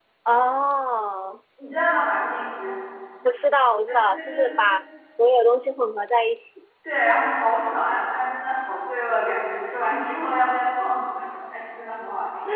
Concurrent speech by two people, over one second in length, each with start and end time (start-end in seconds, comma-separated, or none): none